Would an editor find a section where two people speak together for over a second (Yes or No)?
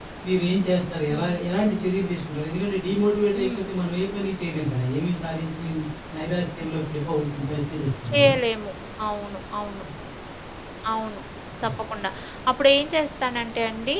No